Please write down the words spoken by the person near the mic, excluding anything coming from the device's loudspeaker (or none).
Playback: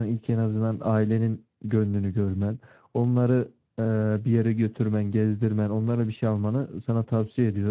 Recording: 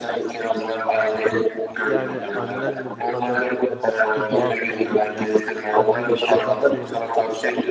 Yani annenle bu kadar e, sıkı bağ kurman, yani anneni bu kadar sevmen